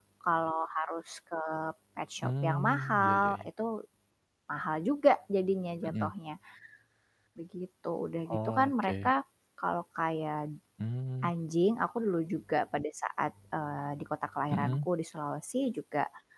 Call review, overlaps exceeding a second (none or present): present